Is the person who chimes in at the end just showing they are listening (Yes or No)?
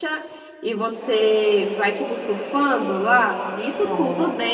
Yes